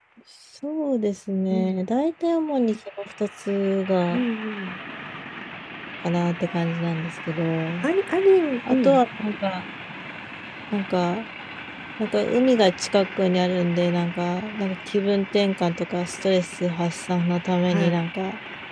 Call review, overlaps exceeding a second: none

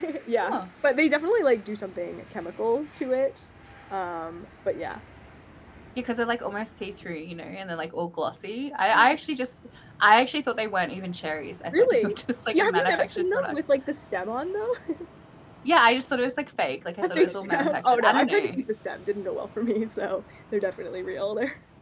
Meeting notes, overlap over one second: present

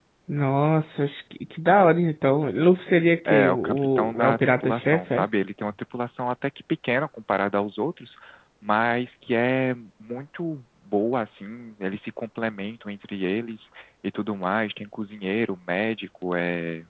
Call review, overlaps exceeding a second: present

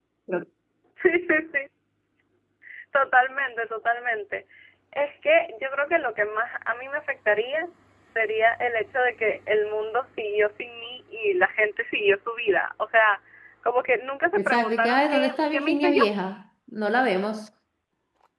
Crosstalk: present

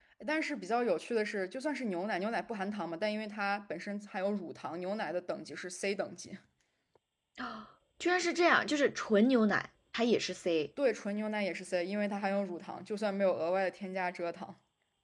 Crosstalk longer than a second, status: none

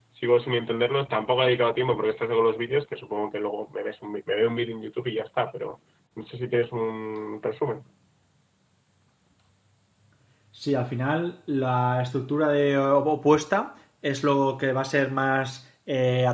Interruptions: none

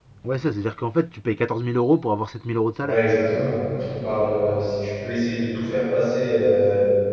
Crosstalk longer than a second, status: none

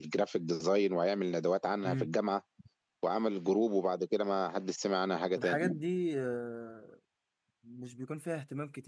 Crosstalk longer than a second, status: none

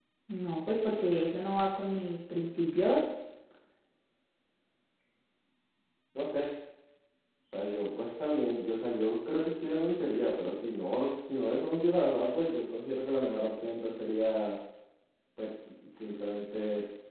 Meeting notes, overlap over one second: none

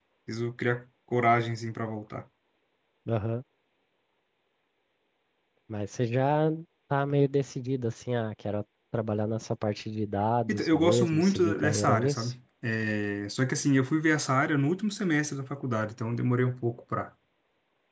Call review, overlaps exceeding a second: present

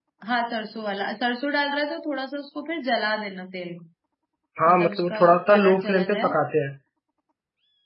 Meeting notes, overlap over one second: present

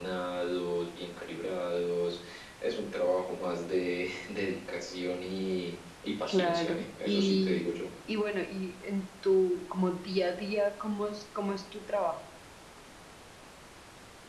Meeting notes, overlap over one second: present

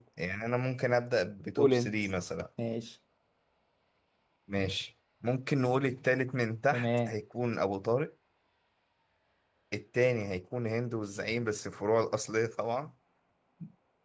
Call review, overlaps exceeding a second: none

